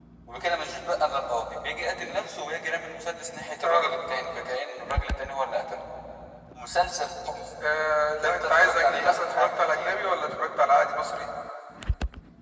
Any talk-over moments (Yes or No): Yes